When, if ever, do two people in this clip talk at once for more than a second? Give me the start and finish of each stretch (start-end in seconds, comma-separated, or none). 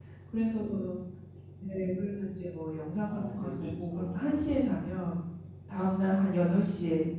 3.0-4.9